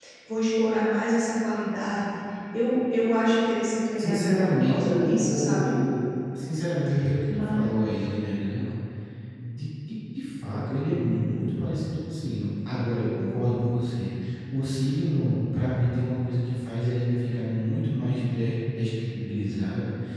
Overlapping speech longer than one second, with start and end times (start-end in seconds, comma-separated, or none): 4.0-5.8